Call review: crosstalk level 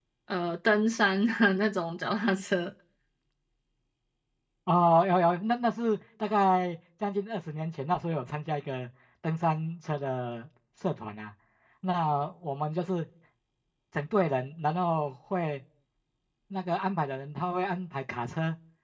none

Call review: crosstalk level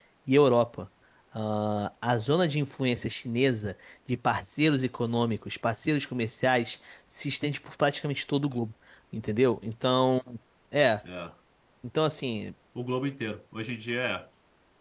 none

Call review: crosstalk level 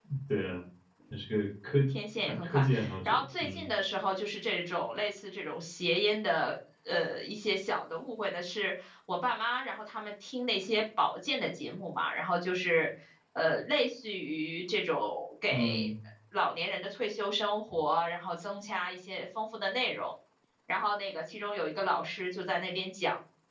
present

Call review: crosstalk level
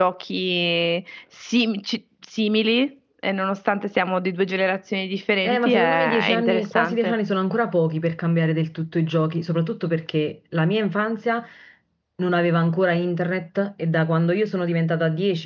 present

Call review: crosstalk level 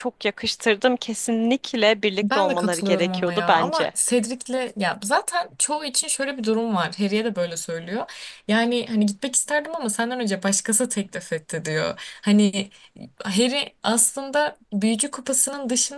present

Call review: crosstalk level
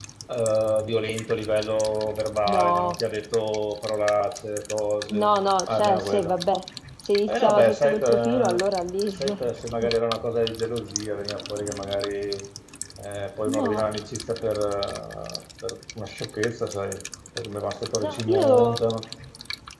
present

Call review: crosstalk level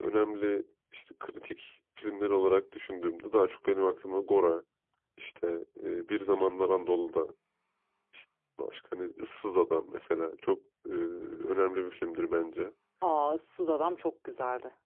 none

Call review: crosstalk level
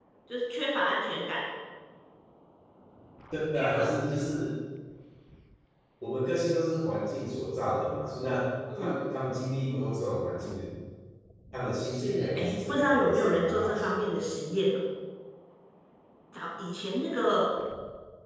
present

